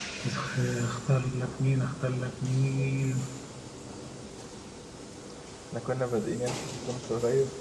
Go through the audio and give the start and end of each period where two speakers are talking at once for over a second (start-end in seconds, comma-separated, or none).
none